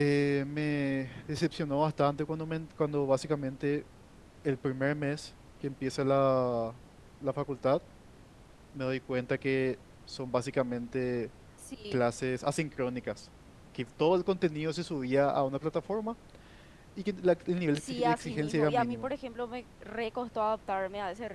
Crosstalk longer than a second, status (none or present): present